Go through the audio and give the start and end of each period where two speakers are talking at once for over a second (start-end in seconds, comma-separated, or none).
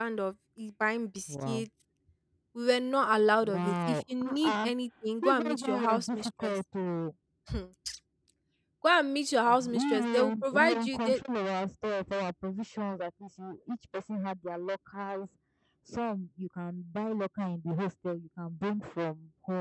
3.4-4.7, 5.2-6.6, 9.4-11.2